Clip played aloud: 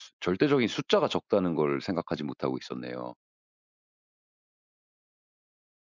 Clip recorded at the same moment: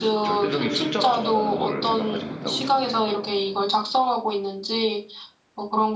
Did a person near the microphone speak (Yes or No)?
Yes